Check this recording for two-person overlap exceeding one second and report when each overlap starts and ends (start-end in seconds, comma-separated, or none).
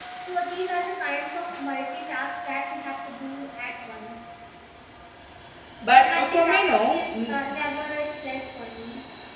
5.9-7.4